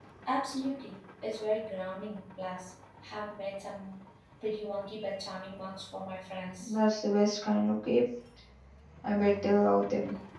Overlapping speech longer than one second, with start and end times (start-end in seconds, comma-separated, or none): none